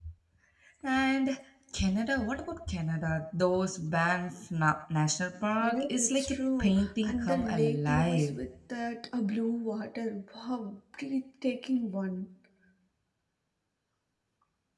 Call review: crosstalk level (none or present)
present